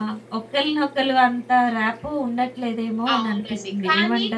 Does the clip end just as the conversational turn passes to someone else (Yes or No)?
Yes